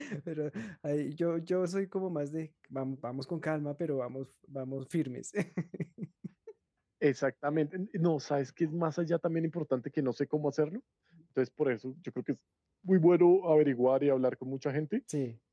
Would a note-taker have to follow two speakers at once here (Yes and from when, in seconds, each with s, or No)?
No